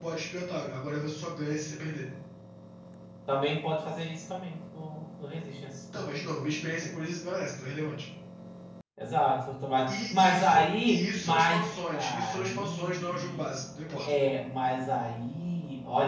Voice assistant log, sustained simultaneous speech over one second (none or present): present